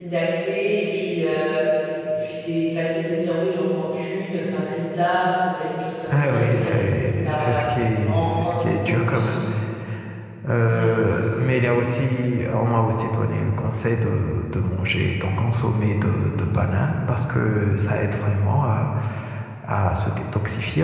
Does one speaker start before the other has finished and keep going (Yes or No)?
Yes